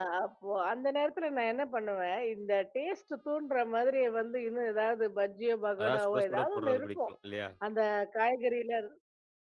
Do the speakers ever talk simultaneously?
Yes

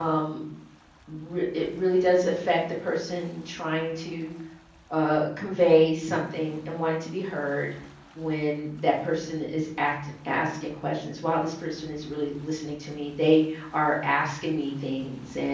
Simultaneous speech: No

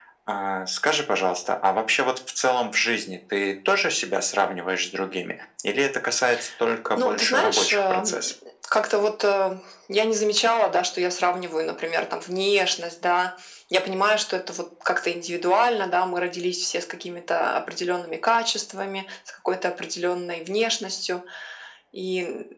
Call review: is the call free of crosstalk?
No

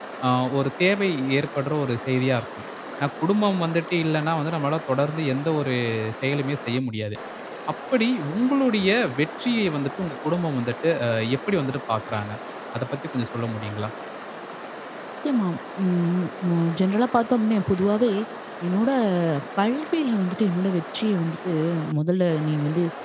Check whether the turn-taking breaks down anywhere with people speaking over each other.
No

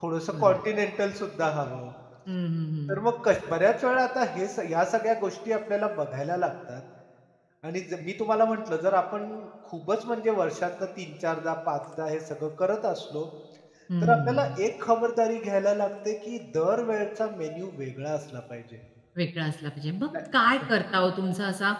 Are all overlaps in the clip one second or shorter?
Yes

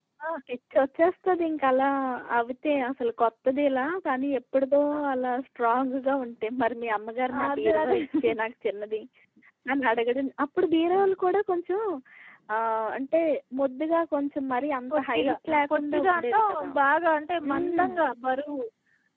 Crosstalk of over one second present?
Yes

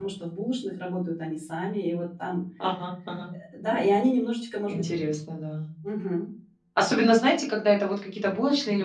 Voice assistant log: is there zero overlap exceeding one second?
Yes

